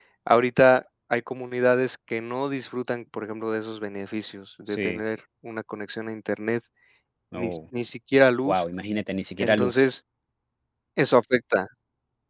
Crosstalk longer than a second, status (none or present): none